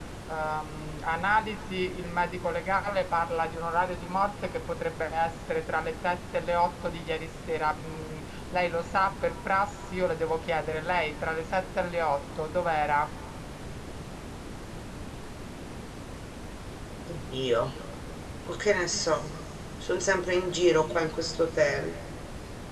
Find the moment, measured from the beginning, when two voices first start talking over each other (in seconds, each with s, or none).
none